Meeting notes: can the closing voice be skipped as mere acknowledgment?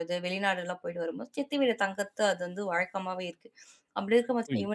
Yes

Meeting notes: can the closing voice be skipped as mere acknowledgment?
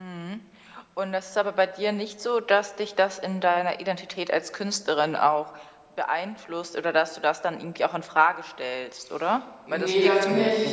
No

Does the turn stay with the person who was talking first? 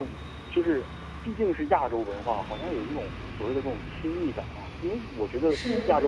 Yes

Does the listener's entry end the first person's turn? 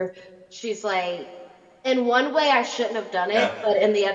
No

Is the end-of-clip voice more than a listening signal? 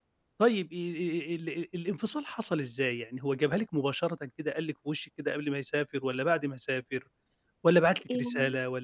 No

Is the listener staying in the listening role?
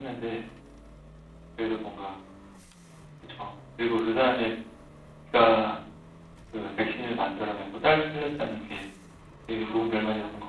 No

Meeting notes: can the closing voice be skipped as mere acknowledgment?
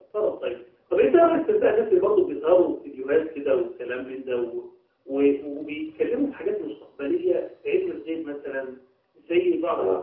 Yes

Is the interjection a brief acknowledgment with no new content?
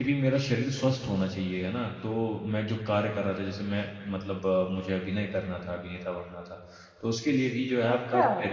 No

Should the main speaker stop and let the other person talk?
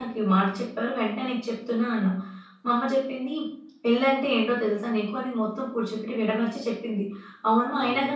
No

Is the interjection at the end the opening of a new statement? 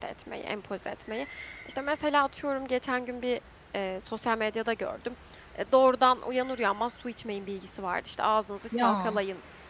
No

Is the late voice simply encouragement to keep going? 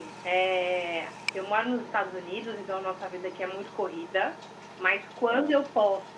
Yes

